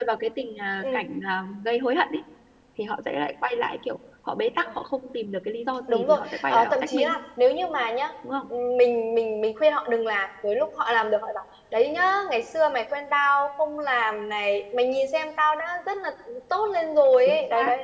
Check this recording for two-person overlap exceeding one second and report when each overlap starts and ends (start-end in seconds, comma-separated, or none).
5.9-7.2